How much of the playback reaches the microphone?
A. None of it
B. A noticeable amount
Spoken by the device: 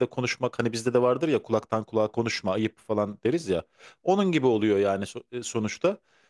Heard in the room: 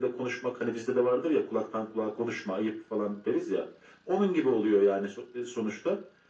B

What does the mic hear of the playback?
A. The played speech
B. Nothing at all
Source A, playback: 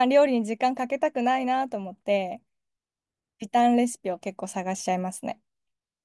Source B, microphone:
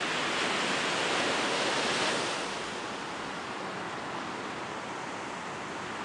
B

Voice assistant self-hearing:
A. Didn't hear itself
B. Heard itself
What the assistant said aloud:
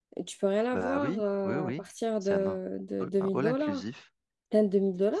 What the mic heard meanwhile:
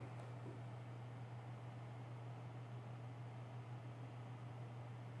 A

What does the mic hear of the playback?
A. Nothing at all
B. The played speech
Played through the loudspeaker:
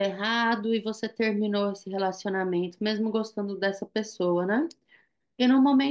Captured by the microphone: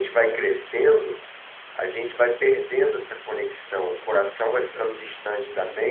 A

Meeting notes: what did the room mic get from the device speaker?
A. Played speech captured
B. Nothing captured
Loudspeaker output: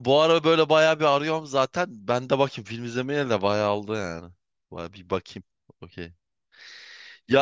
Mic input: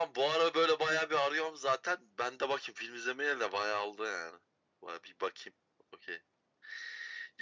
A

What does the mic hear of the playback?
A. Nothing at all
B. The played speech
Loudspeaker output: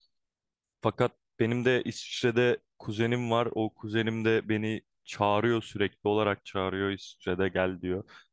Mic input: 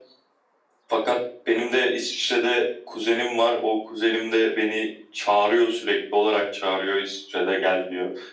B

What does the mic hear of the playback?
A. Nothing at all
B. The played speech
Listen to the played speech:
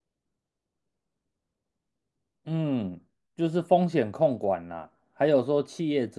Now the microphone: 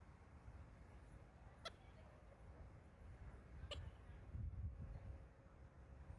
A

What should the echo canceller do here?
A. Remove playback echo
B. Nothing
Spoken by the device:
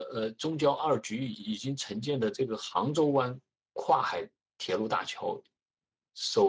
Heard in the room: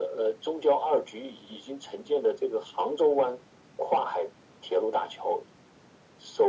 A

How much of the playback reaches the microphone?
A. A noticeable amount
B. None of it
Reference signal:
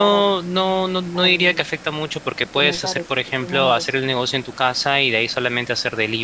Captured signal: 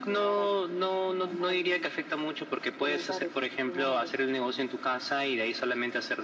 A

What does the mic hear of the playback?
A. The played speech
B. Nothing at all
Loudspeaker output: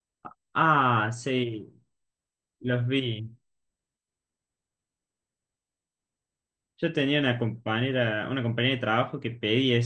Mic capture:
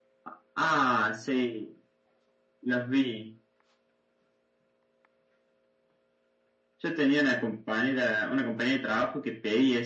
A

